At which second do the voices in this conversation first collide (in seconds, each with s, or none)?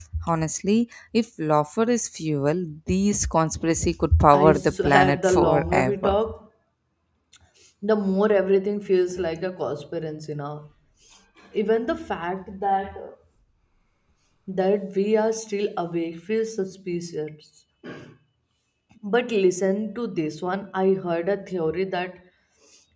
4.3 s